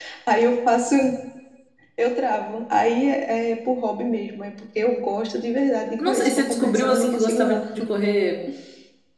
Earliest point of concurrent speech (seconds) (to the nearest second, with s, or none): 6 s